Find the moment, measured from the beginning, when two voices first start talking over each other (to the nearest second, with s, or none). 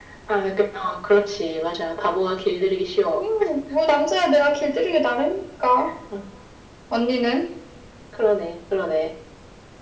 none